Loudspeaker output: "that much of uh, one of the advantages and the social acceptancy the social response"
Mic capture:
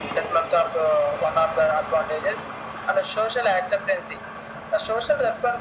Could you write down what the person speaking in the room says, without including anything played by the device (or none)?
none